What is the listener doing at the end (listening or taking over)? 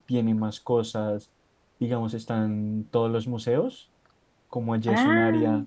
listening